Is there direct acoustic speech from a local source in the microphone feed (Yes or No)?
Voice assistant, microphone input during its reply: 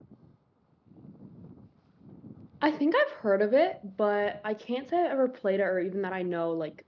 Yes